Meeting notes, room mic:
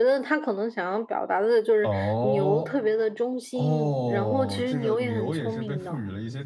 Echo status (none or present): present